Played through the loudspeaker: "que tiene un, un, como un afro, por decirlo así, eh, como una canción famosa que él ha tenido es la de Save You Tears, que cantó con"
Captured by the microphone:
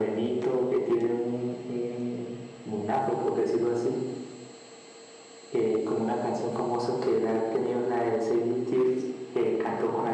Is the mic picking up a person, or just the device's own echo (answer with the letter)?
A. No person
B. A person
A